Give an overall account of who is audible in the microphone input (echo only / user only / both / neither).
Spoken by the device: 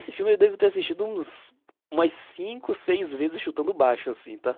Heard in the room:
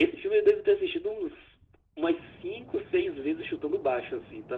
echo only